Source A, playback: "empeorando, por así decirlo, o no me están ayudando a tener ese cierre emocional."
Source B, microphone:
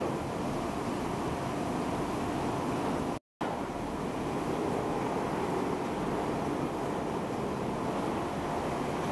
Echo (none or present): none